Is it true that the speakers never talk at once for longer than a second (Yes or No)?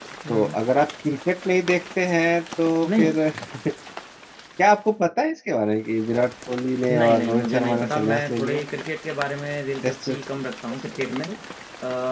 No